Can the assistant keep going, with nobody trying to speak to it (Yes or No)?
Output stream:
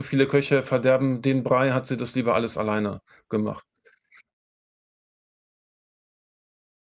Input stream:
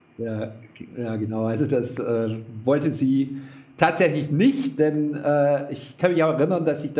No